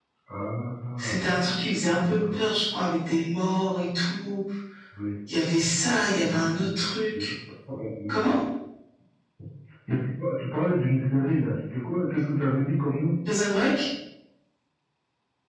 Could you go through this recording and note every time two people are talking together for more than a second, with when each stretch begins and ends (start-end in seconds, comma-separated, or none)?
none